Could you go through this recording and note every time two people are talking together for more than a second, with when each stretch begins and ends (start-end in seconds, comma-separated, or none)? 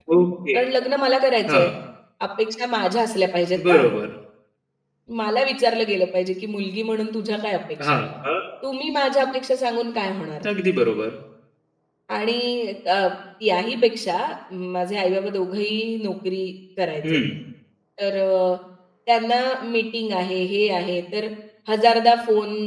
none